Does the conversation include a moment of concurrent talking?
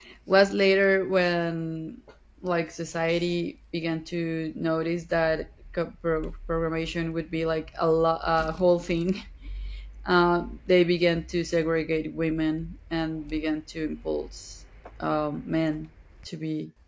No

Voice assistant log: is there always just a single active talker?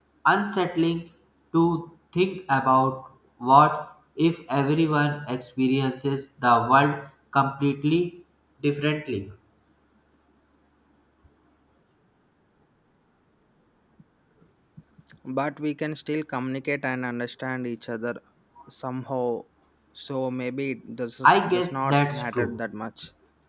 No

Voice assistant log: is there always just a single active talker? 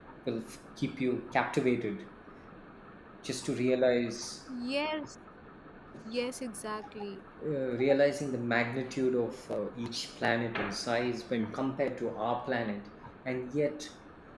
Yes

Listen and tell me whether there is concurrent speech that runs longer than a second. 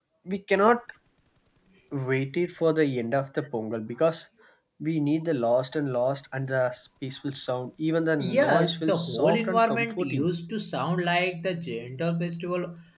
Yes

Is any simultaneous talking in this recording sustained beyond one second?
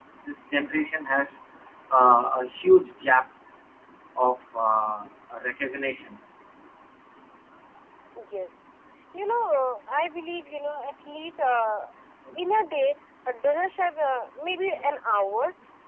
No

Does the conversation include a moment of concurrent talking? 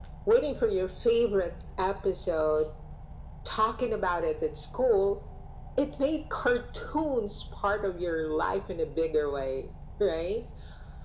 No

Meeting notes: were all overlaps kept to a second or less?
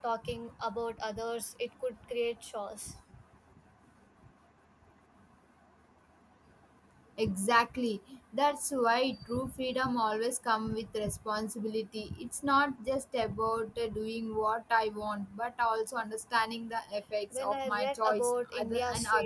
No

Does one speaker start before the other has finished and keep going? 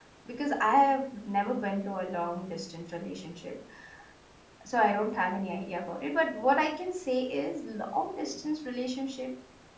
No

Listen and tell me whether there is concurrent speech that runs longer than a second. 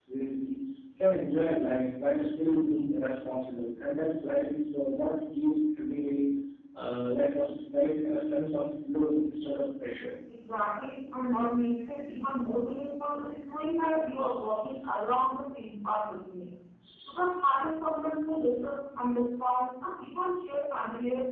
No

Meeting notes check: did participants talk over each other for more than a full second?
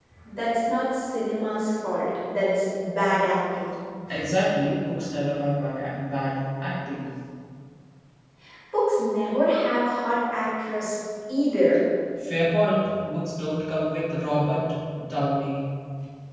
No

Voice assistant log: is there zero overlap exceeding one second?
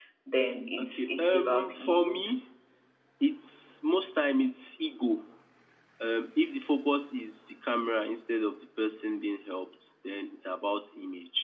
No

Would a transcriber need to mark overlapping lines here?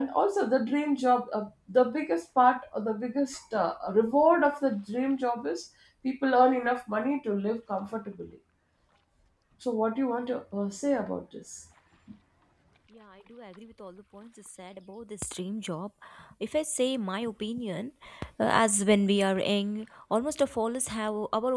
No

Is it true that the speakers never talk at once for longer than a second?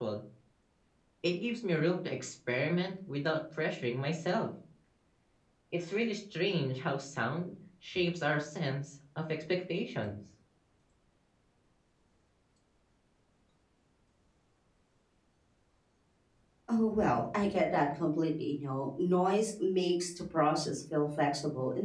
Yes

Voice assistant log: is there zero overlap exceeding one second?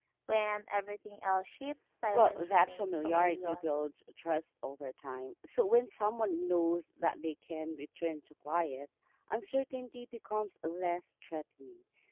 No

